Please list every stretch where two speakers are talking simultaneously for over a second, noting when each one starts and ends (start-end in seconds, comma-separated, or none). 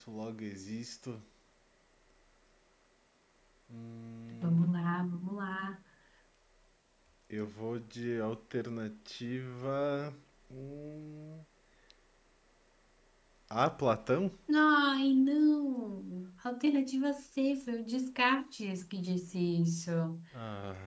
none